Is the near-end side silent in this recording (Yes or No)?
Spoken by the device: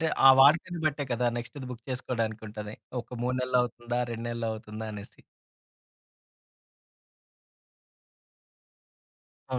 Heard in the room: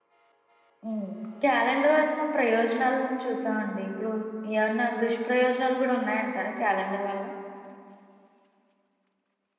No